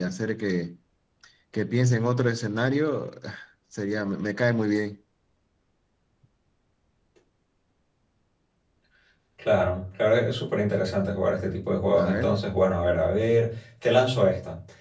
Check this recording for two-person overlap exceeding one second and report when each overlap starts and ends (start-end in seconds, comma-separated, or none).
none